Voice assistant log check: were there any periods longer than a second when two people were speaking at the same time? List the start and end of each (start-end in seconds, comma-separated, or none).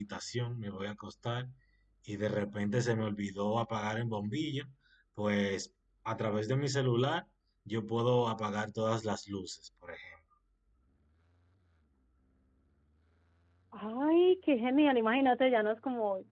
none